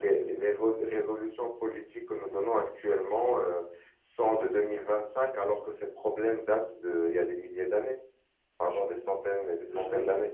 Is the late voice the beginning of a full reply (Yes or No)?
Yes